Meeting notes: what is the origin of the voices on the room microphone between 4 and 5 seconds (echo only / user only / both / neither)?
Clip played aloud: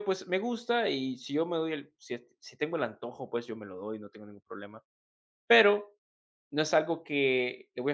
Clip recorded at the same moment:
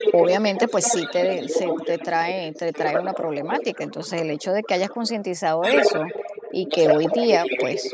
both